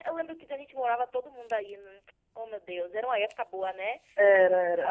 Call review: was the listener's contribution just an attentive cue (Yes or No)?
No